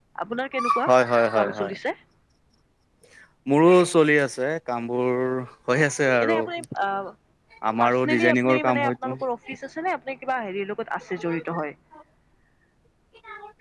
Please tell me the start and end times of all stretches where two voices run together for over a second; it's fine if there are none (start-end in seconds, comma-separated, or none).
7.8-9.1